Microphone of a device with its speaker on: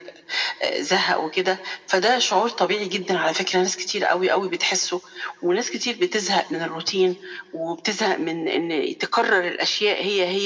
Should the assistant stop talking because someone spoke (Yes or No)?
No